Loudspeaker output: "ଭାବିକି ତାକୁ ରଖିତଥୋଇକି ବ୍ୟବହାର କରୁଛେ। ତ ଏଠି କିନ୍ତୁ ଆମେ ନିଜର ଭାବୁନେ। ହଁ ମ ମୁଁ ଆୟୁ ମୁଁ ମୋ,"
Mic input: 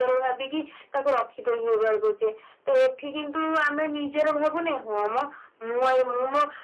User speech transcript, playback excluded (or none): none